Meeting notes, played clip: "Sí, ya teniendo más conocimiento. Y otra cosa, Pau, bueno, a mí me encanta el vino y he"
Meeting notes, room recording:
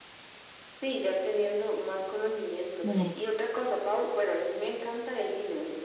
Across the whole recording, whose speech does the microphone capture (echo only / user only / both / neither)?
both